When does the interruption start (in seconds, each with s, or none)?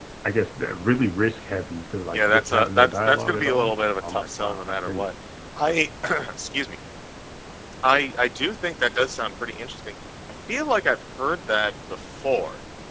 2.1 s